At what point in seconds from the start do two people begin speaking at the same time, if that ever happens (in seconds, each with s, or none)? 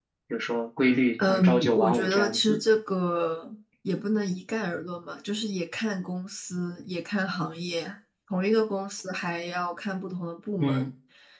1.3 s